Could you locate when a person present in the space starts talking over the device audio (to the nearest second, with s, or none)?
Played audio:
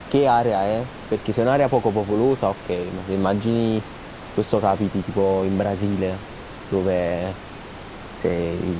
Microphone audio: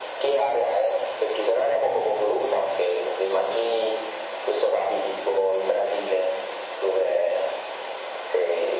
none